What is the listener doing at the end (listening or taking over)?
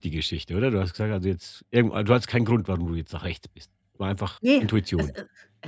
taking over